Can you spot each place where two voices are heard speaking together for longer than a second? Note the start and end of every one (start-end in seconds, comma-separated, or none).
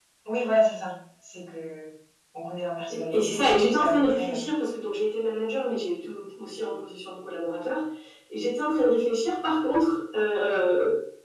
2.9-4.5